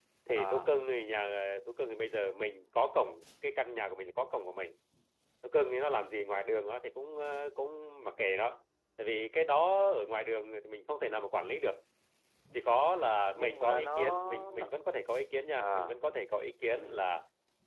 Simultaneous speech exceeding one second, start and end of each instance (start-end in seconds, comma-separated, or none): 13.3-14.7